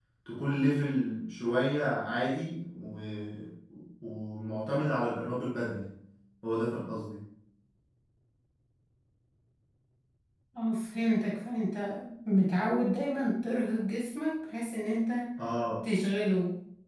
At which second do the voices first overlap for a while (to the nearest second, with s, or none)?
none